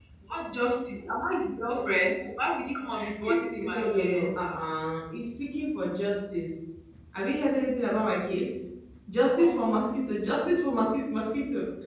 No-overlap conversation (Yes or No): No